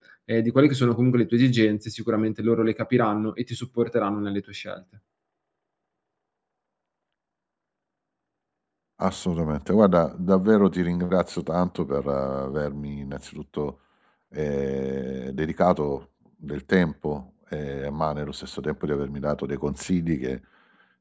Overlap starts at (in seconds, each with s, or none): none